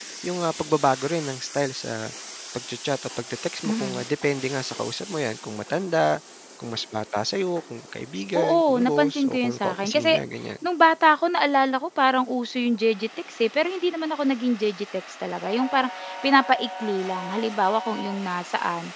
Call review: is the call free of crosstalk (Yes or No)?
No